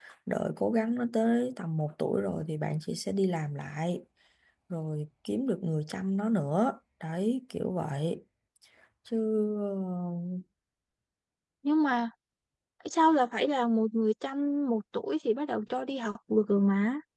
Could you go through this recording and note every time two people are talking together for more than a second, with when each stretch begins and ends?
none

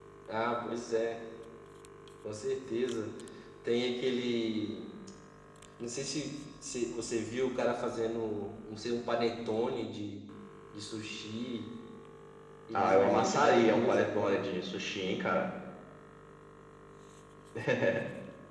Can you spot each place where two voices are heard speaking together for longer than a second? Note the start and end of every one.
12.7-14.5

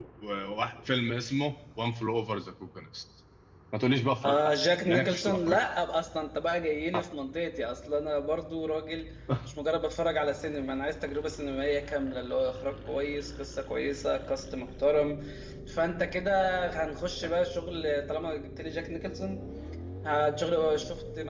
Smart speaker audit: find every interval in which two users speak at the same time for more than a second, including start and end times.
4.2-5.6

